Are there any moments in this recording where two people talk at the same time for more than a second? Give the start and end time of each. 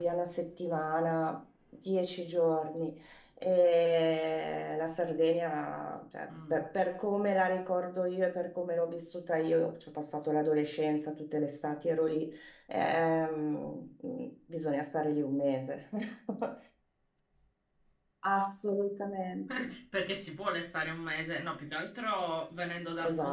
none

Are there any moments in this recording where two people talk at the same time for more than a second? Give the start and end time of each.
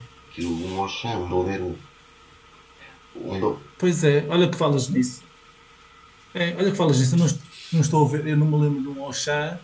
none

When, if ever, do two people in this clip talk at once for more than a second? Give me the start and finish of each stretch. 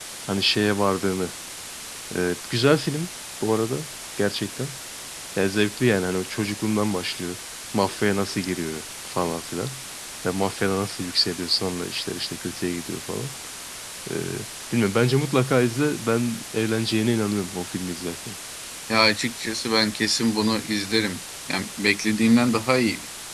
none

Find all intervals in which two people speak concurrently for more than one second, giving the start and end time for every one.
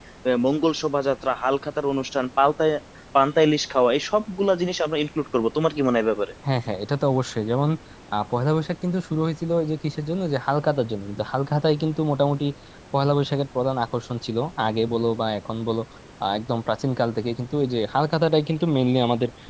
none

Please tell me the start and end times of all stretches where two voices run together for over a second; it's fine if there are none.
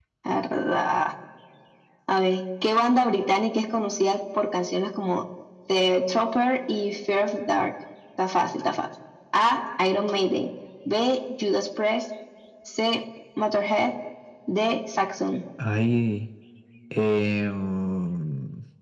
none

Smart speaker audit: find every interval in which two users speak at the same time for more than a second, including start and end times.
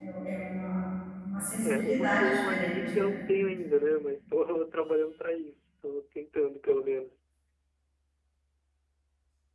1.6-3.2

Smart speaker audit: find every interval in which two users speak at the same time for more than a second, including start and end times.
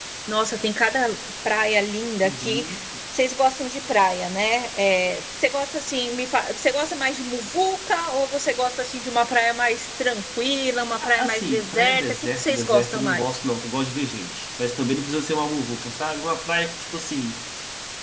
11.0-13.3

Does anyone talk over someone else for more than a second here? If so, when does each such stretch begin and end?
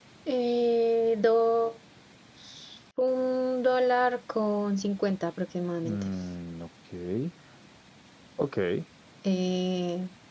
none

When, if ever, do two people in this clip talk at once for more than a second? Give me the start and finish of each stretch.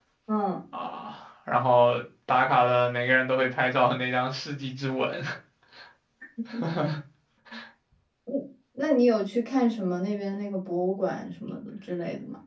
none

